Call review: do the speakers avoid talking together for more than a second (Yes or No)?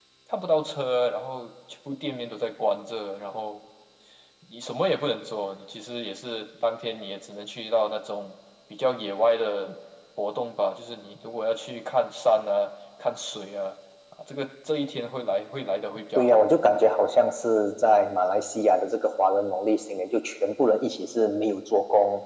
Yes